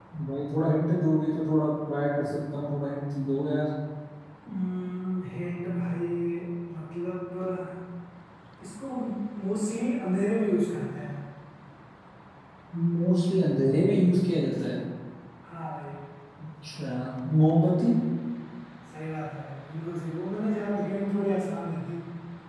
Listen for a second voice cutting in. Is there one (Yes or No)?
No